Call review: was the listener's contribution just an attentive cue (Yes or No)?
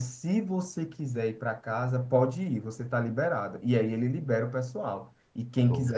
Yes